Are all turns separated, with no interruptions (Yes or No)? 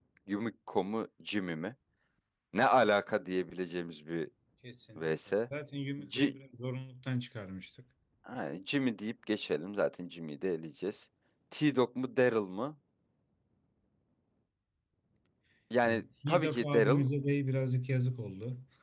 No